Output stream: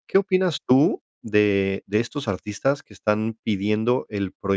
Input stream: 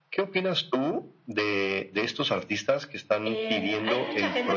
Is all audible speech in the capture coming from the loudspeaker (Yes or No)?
No